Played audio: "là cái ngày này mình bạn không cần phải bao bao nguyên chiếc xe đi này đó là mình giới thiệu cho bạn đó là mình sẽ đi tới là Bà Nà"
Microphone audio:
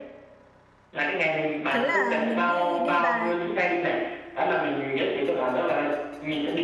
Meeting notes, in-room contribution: present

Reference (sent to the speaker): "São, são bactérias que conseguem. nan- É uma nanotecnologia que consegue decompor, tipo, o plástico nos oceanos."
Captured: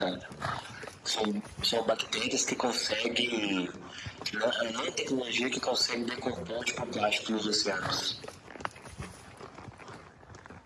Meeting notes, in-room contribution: none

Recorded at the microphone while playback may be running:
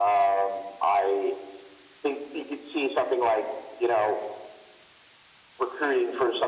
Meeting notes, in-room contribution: none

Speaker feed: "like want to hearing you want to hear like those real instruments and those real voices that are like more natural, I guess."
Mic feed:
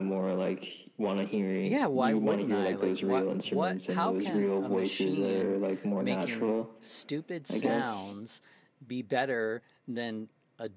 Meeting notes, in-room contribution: present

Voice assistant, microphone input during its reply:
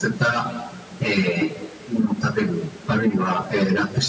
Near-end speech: none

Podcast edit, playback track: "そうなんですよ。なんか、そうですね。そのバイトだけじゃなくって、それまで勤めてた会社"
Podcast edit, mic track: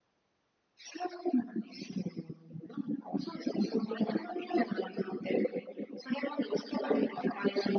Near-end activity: none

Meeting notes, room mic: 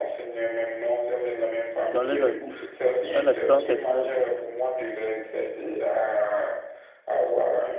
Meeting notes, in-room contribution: present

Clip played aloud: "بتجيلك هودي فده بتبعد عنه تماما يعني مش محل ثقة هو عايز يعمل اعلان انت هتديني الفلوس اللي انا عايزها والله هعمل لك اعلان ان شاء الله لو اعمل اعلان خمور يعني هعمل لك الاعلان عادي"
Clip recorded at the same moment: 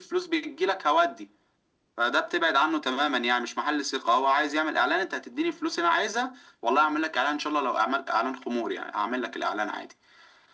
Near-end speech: none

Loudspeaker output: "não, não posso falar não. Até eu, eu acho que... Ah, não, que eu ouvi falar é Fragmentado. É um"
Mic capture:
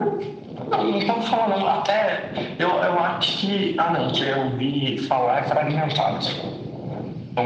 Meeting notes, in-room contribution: none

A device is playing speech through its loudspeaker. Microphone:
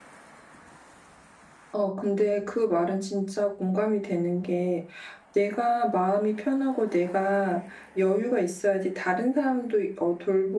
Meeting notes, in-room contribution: present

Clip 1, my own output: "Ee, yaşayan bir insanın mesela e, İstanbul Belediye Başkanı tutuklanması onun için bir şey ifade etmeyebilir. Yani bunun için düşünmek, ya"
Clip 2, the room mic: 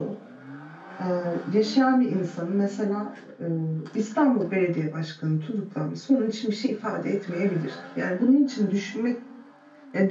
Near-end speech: none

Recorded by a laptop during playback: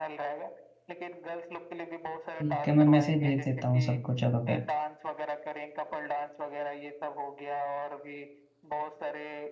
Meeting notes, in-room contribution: present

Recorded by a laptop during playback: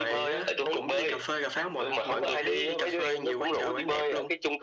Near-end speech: none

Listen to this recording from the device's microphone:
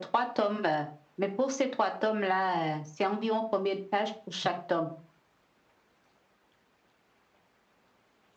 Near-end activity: none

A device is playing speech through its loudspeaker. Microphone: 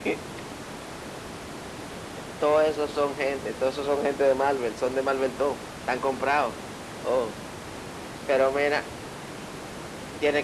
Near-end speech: none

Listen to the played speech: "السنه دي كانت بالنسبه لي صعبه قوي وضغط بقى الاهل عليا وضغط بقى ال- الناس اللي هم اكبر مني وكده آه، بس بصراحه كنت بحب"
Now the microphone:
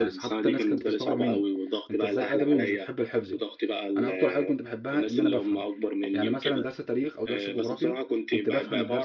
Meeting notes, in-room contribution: present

